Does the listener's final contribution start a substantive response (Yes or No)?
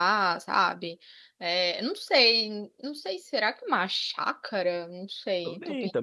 Yes